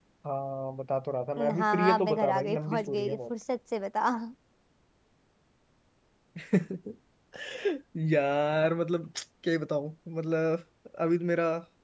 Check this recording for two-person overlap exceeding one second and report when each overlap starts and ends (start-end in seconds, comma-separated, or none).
1.4-3.2